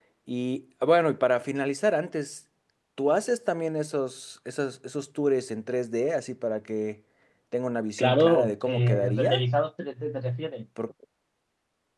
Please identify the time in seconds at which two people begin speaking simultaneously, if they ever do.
8.0 s

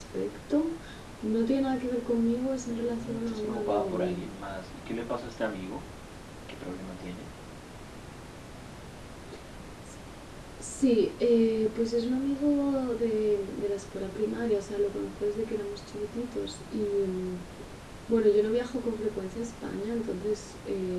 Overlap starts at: 2.7 s

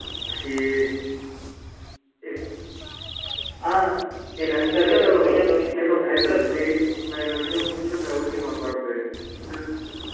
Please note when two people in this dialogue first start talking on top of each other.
4.7 s

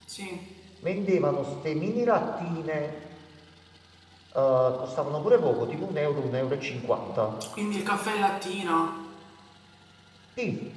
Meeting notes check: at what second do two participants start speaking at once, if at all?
none

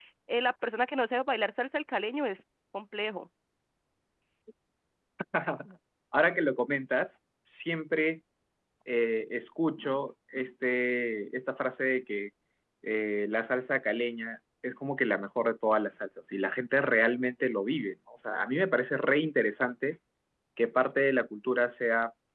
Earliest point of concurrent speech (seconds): none

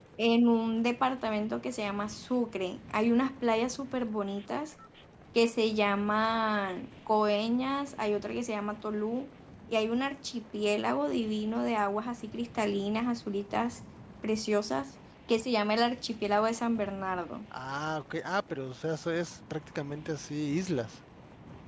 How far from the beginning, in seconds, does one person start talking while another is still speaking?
none

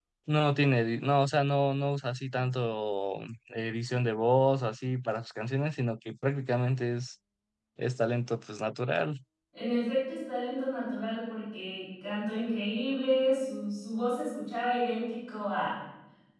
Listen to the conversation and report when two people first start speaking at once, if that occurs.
none

